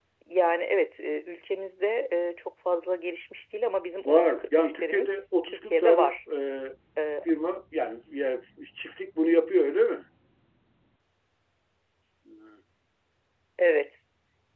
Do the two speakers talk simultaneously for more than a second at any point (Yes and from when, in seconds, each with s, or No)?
Yes, from 4.0 s